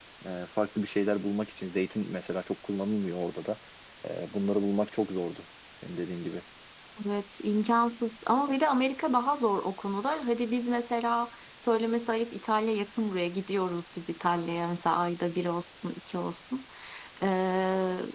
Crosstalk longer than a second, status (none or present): none